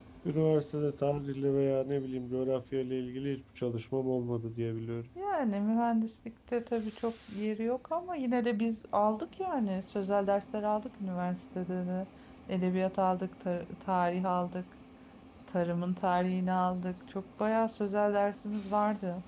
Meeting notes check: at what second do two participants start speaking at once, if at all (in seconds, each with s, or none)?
none